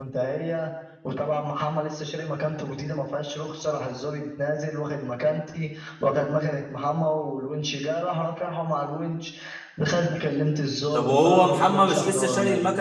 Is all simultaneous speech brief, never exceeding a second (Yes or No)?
No